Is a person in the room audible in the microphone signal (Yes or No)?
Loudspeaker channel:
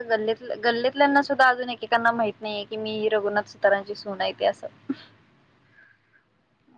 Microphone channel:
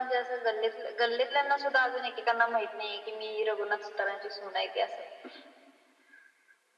No